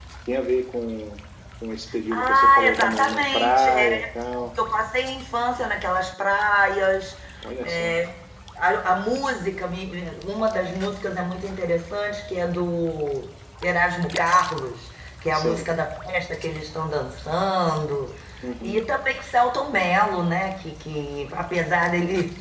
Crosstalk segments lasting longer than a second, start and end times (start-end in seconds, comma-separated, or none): 2.1-4.0